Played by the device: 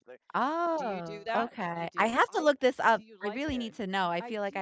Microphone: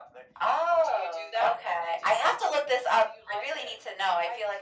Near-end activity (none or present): none